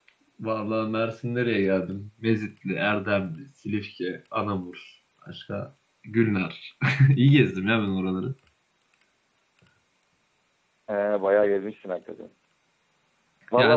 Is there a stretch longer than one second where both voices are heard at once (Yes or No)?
No